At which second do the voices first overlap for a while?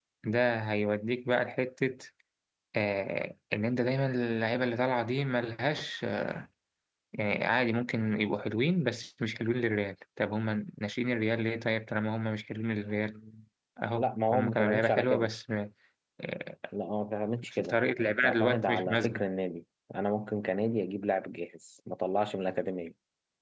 14.0 s

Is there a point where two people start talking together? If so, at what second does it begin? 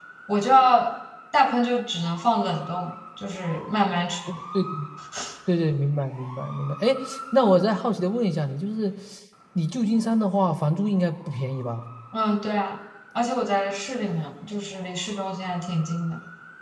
none

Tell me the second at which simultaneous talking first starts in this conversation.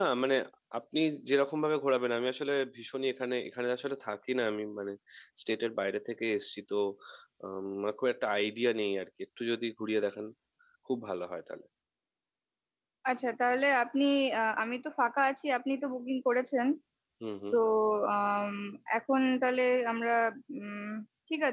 none

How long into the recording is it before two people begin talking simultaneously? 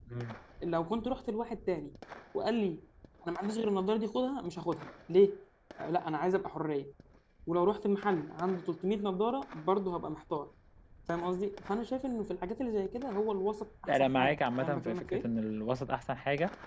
13.9 s

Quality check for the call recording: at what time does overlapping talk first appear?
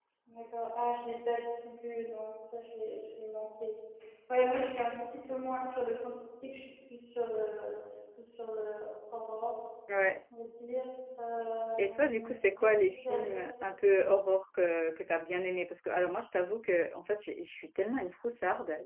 11.7 s

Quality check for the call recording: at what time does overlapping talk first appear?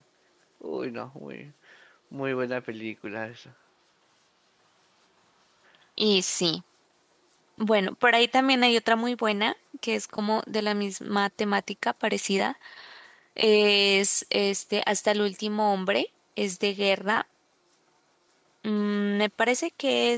none

